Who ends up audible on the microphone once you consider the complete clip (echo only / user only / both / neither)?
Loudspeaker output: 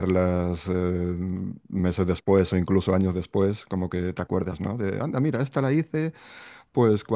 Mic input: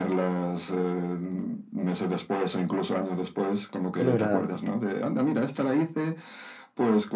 both